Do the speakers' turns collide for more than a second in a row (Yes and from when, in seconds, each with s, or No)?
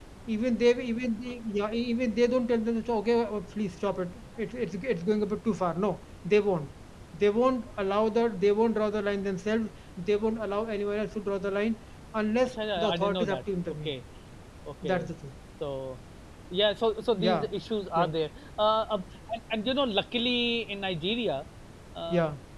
Yes, from 12.5 s